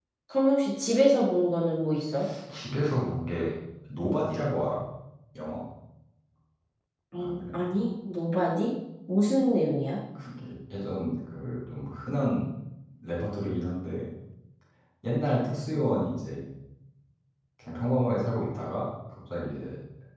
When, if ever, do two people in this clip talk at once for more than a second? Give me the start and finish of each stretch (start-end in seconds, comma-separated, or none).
none